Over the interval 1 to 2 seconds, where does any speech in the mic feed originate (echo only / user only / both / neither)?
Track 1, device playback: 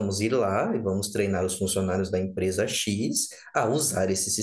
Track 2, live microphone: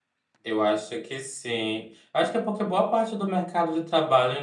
user only